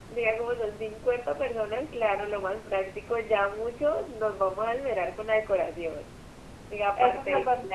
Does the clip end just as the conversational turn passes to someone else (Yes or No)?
Yes